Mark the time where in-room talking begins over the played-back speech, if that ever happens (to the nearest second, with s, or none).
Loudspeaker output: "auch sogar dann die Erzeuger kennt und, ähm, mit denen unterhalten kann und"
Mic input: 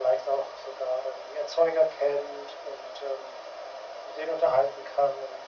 none